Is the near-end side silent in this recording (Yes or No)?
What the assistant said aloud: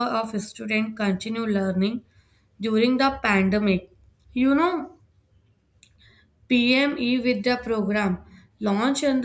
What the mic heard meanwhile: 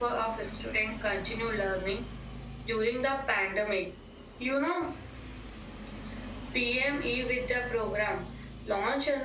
Yes